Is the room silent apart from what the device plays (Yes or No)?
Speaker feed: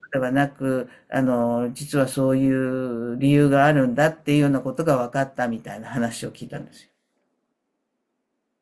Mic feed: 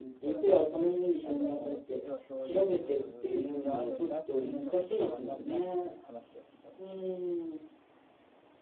No